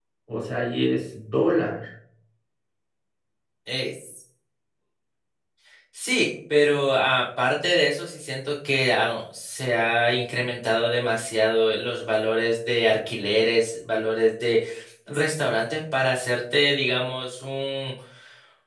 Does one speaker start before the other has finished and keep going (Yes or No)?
No